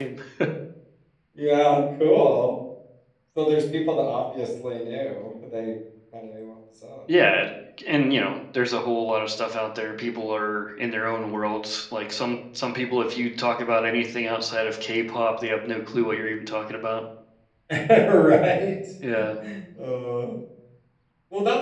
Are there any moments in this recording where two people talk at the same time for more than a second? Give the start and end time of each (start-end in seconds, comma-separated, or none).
none